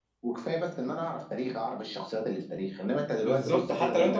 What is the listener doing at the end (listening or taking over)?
taking over